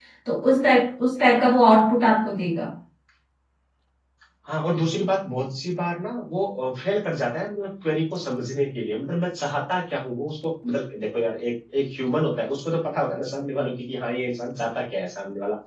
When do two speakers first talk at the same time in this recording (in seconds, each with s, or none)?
none